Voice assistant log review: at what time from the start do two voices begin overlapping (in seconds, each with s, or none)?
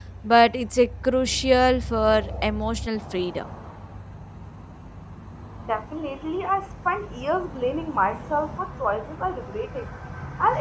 none